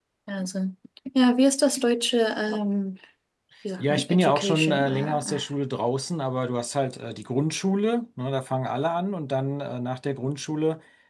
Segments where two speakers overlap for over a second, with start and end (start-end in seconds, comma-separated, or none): 3.8-5.4